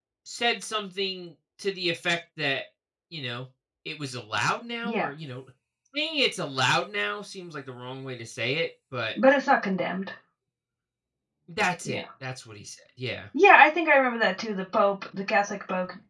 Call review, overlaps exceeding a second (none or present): none